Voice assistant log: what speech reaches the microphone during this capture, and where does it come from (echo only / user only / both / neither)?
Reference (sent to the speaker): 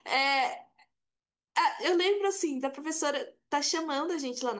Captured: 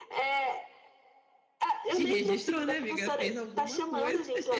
both